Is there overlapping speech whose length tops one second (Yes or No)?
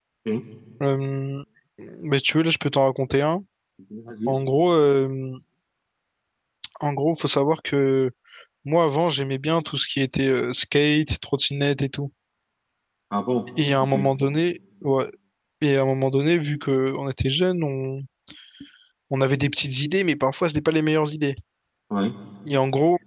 No